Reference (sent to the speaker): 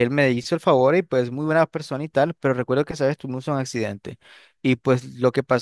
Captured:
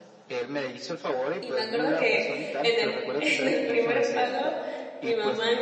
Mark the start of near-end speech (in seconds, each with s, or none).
1.4 s